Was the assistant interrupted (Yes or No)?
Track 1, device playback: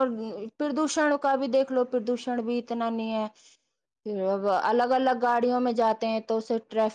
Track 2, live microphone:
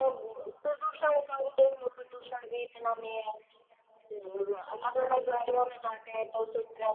No